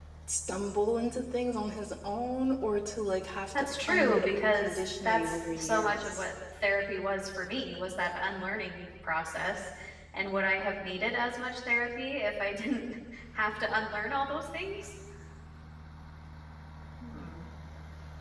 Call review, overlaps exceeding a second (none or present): present